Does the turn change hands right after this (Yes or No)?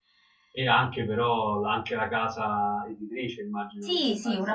Yes